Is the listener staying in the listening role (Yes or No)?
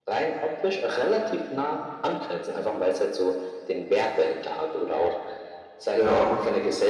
Yes